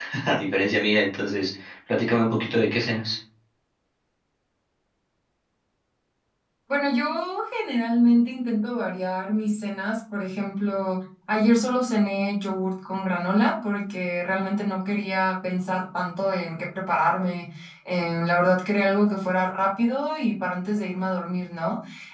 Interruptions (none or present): none